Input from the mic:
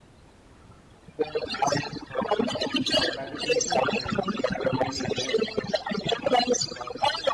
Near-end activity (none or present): present